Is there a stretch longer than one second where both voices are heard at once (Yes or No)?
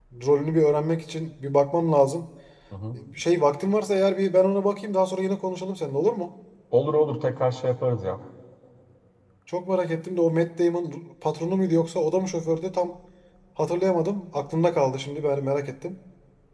No